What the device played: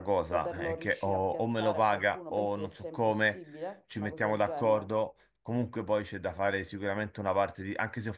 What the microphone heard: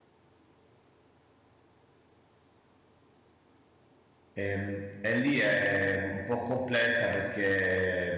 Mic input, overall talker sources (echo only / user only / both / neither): user only